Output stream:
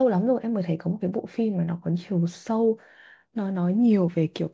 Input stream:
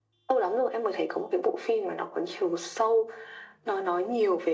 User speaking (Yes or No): No